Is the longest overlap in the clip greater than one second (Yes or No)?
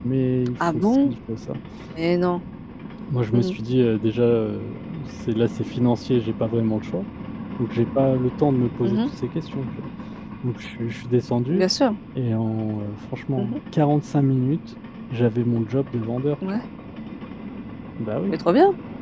No